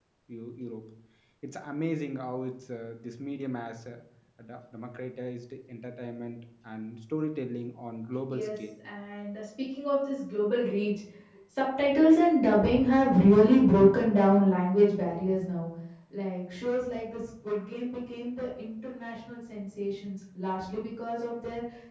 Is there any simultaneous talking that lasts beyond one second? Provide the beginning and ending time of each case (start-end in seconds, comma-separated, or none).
none